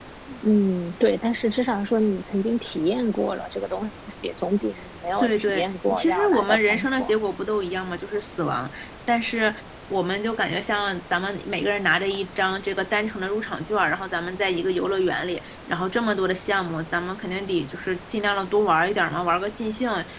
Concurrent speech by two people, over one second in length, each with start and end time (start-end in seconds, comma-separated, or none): 5.2-7.1